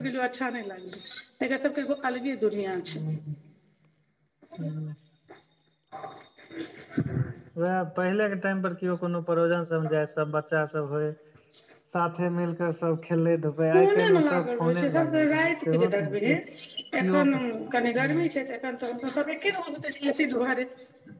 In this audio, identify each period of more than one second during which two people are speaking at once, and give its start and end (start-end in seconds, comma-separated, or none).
13.8-16.1